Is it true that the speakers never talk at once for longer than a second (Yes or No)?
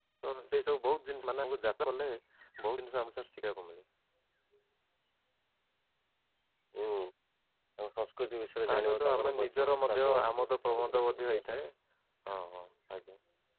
No